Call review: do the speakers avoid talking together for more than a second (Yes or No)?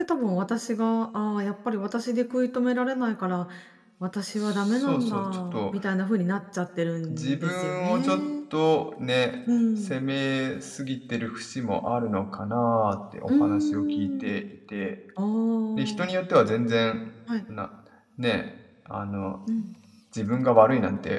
No